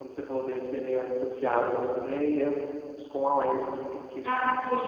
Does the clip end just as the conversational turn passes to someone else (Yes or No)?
Yes